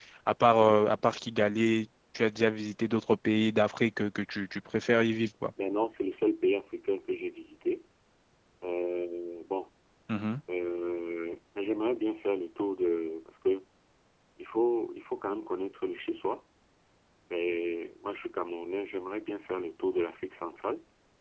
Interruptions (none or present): none